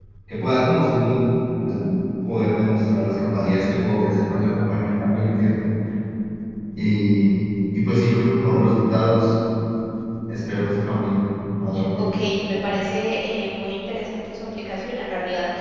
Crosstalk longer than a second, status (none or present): none